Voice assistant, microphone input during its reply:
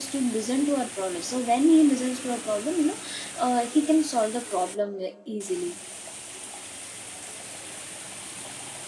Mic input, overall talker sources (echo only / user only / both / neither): user only